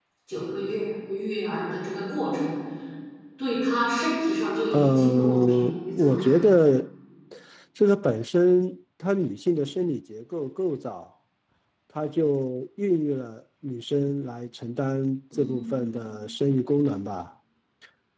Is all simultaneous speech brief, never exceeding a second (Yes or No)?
No